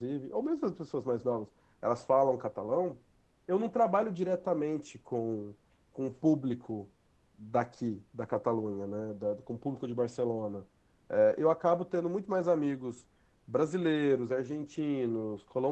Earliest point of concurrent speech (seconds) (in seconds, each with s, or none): none